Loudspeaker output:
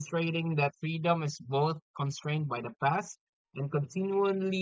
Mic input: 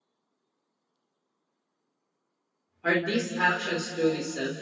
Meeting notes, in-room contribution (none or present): present